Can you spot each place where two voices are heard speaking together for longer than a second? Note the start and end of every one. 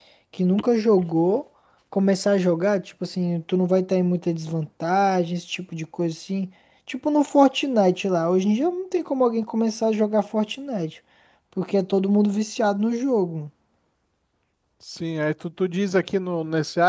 none

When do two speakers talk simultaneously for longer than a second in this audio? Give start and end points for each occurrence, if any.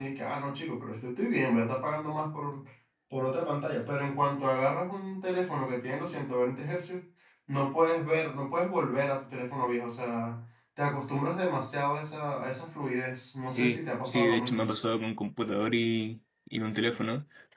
13.4-14.7

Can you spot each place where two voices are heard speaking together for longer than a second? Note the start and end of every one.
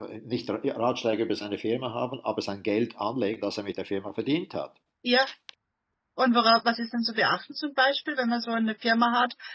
none

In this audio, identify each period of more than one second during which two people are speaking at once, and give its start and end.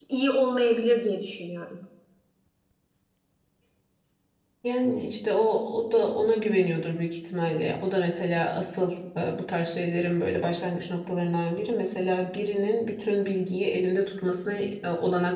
none

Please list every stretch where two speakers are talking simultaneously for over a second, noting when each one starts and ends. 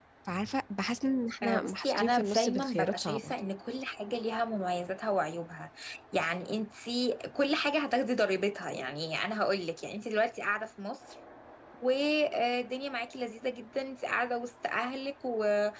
1.4-3.3

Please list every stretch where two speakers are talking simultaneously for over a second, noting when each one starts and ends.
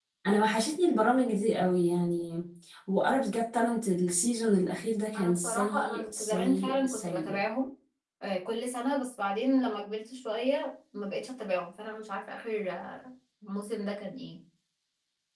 5.1-7.4

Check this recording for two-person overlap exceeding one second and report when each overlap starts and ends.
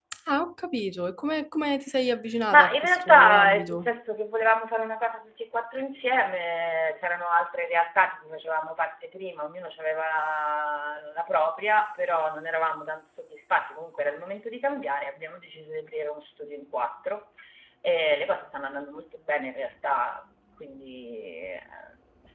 2.5-3.9

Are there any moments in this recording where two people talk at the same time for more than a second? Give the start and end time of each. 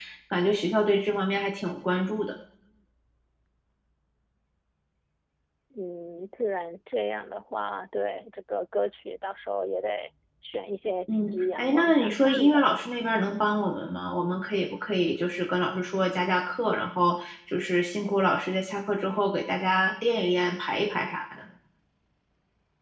11.1-12.7

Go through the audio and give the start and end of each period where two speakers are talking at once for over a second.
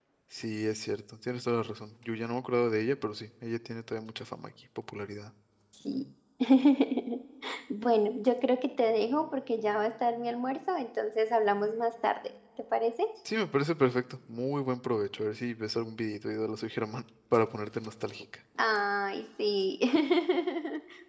none

